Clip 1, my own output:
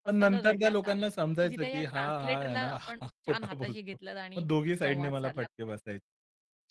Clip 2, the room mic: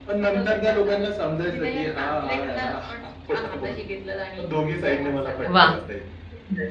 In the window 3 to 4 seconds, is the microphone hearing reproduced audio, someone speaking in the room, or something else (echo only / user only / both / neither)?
echo only